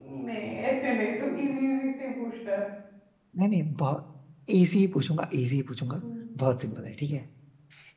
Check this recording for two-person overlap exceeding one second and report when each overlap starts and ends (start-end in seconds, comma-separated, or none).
none